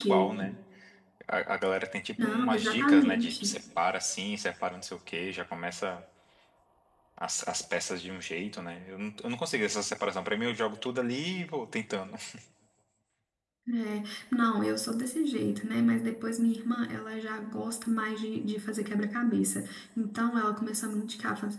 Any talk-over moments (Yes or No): Yes